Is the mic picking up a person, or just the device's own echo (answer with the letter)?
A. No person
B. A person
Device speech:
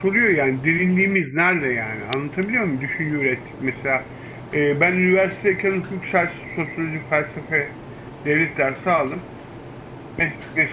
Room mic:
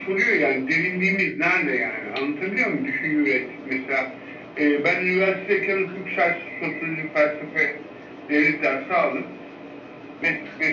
A